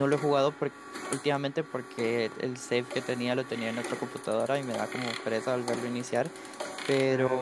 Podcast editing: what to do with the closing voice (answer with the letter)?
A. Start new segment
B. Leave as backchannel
B